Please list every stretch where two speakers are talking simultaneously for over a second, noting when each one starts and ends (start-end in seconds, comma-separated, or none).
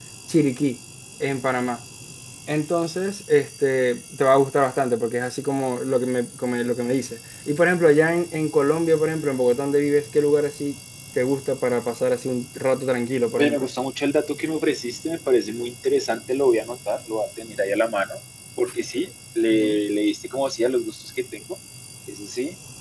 none